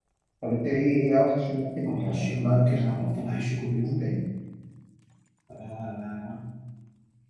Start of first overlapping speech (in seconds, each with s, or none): 1.9 s